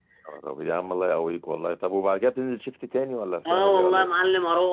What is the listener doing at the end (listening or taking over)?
taking over